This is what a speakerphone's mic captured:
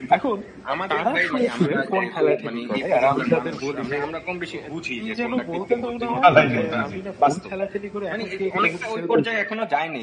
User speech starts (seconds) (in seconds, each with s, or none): 6.2 s